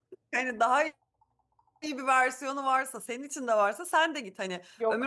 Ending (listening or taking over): listening